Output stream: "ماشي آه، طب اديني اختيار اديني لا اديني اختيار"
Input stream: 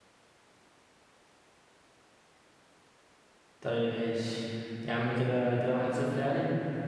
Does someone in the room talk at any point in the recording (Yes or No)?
Yes